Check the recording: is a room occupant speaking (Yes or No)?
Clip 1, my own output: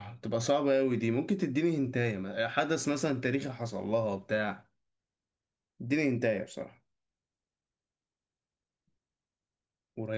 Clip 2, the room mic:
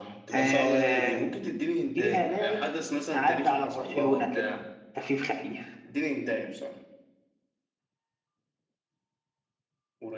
Yes